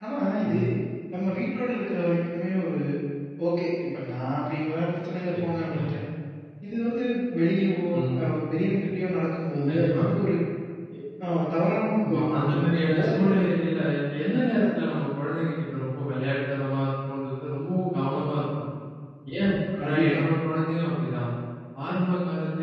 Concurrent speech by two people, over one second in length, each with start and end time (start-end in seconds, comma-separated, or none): 12.1-13.4